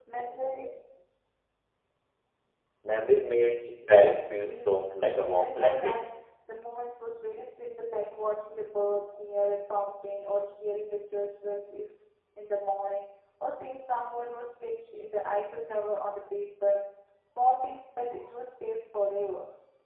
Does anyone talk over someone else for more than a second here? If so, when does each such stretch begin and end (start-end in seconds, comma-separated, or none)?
3.9-6.0